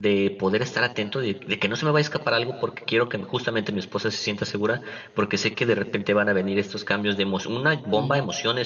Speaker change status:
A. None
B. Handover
A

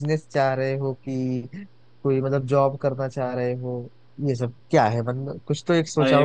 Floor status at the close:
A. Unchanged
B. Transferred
B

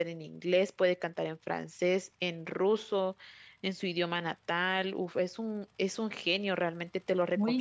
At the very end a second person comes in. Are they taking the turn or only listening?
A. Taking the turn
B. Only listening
A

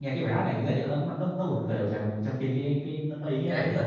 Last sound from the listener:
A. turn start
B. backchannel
A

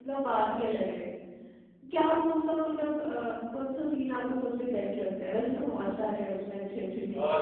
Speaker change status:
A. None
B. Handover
B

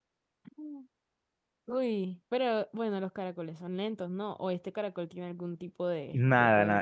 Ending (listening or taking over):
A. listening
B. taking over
B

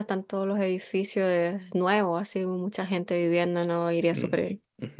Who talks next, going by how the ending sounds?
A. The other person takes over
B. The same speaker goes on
A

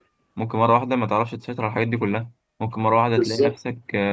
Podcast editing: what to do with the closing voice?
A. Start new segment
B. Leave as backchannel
B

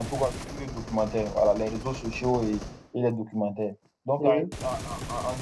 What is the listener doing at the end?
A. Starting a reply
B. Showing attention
B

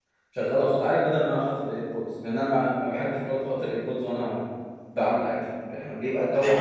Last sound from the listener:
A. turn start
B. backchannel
B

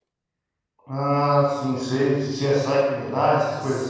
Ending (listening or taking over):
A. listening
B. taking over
B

